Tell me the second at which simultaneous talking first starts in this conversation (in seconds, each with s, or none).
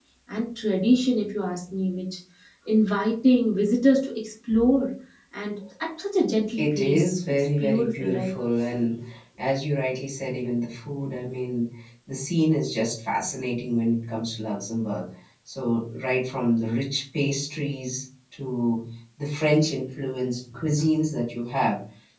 6.6 s